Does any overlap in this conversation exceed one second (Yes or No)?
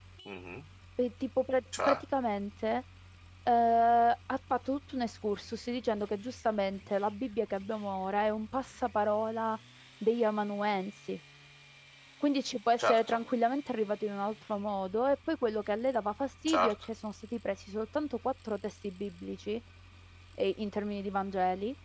No